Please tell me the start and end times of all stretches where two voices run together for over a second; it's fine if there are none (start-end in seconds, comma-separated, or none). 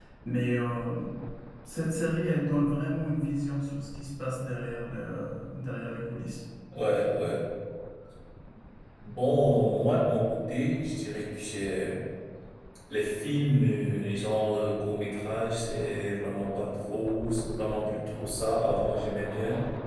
none